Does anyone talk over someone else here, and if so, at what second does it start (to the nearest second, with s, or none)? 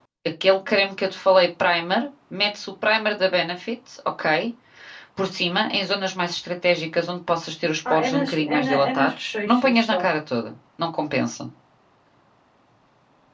8 s